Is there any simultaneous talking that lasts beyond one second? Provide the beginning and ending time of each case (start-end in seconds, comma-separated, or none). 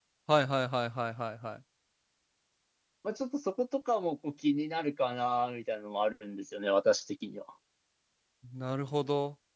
none